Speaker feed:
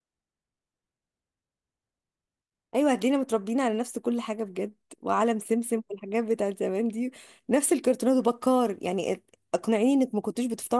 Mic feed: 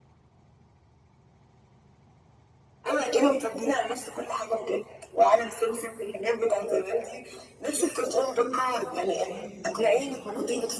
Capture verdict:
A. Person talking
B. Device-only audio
A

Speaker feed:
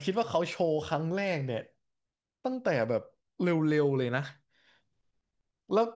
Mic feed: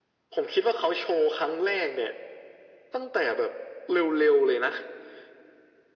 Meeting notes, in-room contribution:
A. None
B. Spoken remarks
A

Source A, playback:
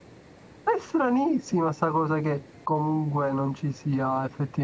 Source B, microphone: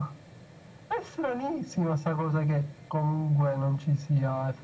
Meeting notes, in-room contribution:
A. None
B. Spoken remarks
A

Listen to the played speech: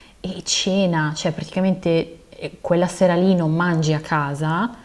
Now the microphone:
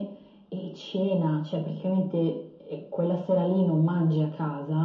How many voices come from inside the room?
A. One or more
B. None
B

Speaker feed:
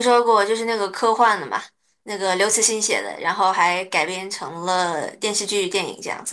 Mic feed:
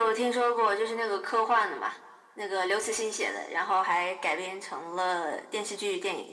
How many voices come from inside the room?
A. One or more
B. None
B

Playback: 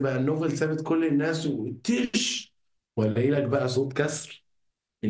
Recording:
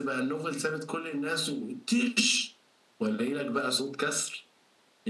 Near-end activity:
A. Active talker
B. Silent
B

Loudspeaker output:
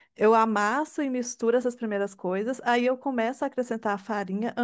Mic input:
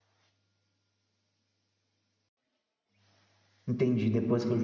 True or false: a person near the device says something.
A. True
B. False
A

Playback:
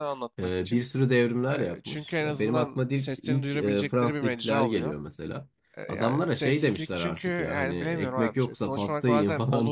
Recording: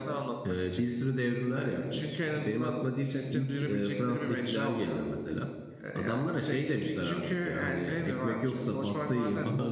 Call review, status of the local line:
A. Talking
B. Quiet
B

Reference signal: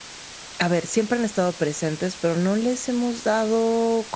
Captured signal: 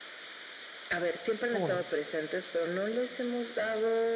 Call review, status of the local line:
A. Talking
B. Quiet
A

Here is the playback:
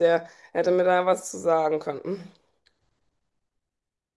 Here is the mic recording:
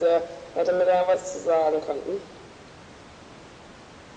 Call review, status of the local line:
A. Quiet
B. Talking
A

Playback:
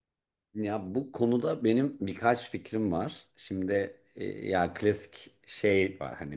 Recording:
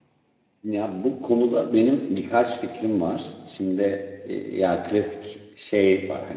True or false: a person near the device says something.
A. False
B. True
A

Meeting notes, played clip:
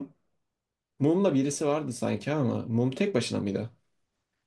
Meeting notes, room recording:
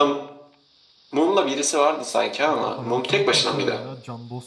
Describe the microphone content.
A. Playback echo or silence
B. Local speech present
B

